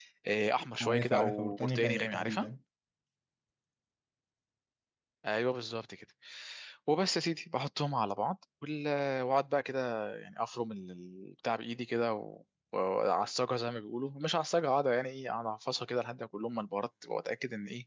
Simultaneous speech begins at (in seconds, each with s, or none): 0.8 s